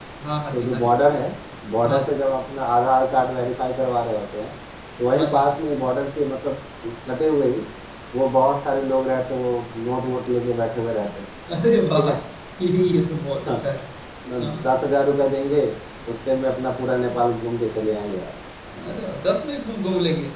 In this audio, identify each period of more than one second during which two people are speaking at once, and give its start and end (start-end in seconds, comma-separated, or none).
none